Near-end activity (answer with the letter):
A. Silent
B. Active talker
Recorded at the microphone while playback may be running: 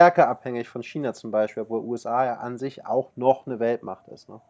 B